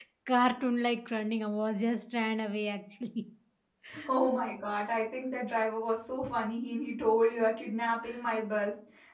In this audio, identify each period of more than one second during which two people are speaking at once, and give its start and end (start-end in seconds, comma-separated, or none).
none